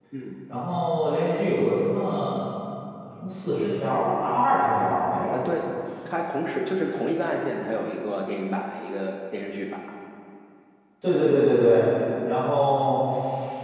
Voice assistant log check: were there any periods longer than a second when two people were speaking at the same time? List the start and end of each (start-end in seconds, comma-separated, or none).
none